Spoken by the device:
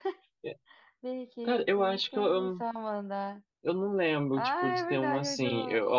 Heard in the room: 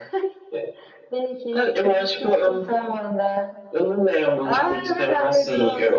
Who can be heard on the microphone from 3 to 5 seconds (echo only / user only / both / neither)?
echo only